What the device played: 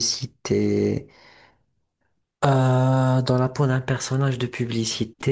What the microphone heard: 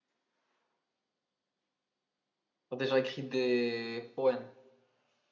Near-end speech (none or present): present